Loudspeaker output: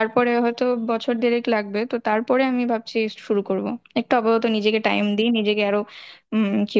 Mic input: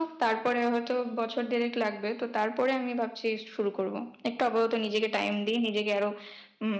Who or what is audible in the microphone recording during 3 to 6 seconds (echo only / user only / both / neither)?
echo only